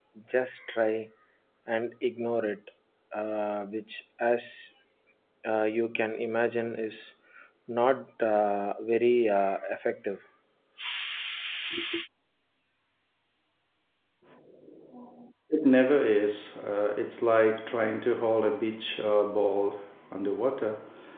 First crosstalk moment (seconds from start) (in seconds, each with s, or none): none